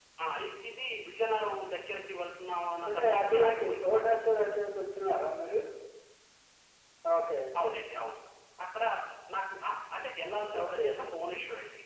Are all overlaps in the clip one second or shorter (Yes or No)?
No